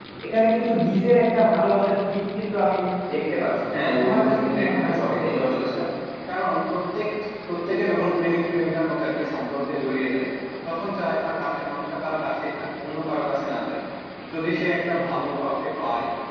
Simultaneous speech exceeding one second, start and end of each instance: 3.7-5.8

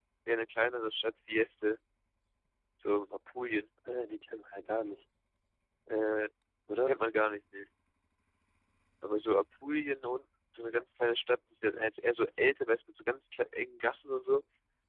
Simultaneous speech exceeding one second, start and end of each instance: none

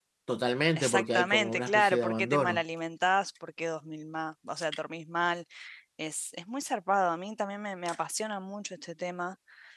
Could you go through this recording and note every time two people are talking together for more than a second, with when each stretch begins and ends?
0.8-2.6

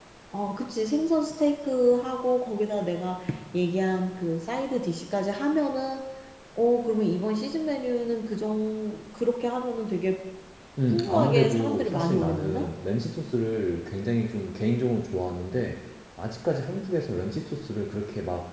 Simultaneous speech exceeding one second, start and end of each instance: 10.9-12.7

